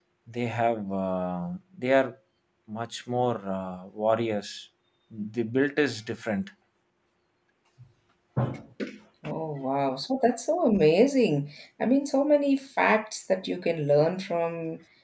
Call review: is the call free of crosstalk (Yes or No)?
Yes